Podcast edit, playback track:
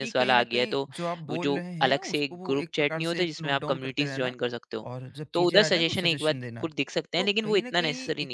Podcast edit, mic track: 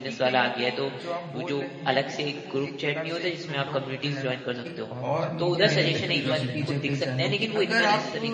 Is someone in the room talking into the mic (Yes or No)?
Yes